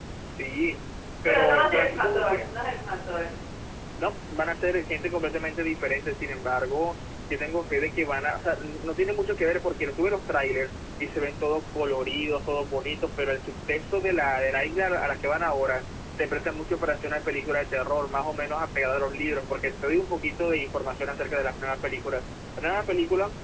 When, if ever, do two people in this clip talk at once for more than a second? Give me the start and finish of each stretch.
1.2-2.5

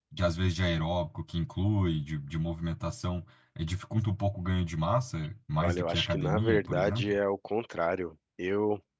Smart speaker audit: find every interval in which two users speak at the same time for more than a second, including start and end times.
5.6-7.2

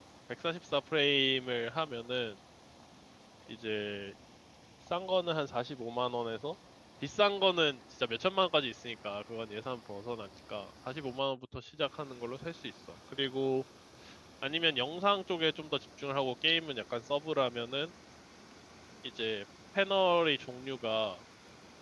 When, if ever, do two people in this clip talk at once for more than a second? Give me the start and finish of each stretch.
none

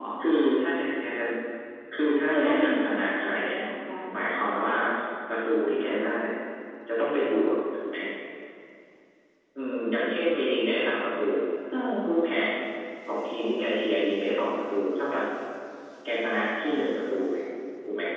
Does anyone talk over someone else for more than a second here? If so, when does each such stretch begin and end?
2.3-3.6

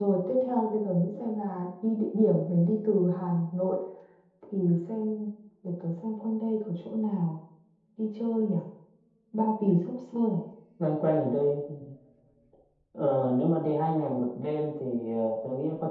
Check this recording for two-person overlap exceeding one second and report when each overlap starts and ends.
none

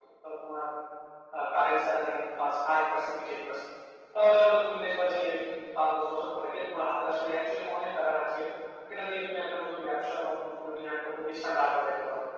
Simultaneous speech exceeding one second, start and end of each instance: none

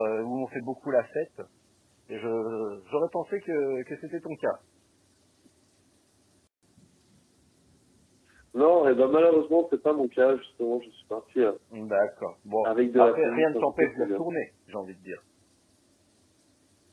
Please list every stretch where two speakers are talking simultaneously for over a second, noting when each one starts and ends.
12.6-14.2

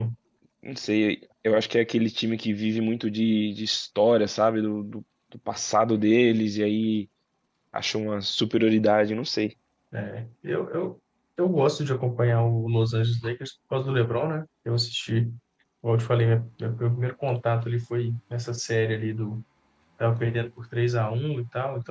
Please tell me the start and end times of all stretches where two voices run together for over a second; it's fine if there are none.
none

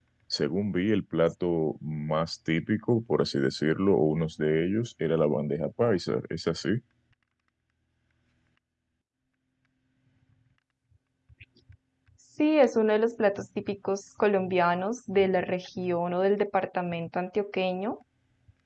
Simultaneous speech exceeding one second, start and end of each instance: none

